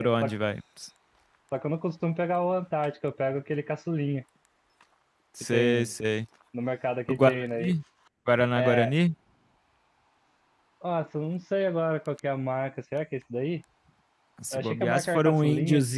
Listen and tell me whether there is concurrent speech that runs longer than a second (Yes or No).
Yes